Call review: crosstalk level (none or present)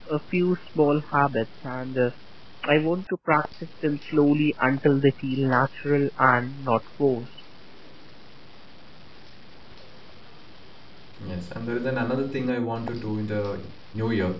none